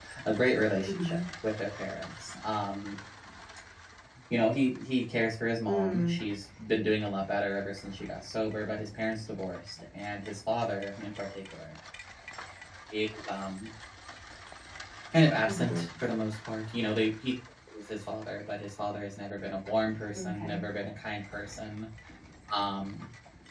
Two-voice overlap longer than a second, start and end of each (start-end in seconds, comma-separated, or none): none